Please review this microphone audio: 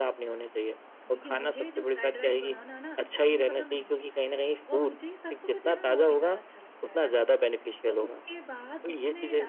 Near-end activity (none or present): present